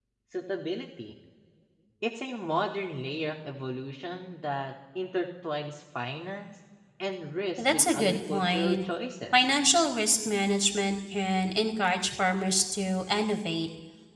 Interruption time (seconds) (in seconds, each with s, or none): 7.6 s